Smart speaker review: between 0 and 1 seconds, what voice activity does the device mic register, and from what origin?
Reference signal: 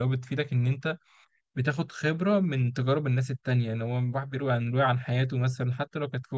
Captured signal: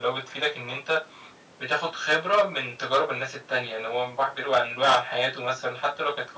echo only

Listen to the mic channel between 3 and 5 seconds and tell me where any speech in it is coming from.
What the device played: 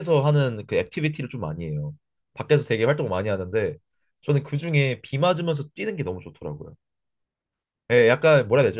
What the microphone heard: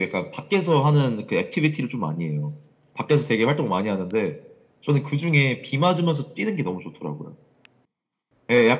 echo only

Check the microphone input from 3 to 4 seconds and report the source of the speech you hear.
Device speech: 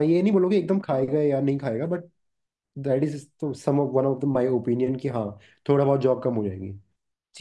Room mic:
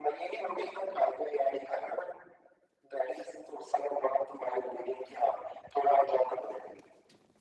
echo only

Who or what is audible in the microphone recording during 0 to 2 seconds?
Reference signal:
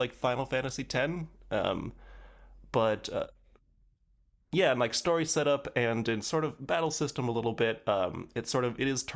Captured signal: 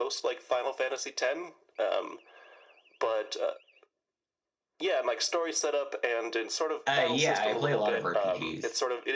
echo only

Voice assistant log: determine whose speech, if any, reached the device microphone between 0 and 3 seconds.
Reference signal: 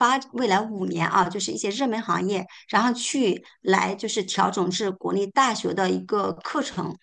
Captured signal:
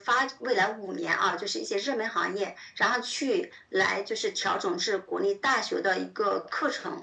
echo only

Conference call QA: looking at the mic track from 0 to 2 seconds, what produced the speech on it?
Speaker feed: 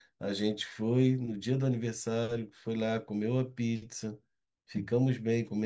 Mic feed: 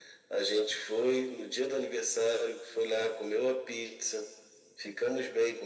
echo only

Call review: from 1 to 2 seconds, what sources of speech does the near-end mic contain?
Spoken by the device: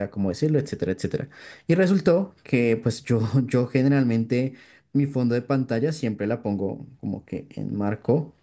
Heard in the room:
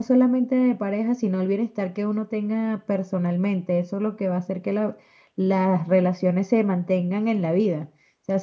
user only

